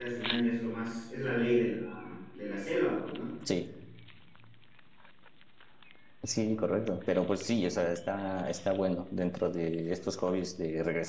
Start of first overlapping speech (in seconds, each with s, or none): none